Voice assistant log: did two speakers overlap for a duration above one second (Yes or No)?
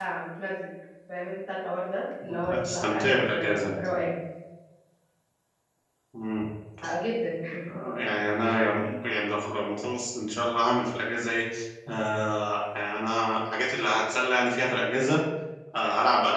Yes